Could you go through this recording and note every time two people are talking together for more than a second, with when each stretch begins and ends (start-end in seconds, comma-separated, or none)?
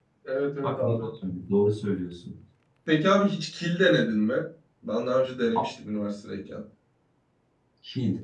none